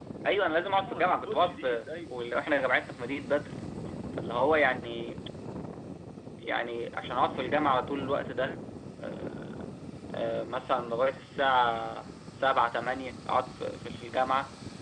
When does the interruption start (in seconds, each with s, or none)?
0.8 s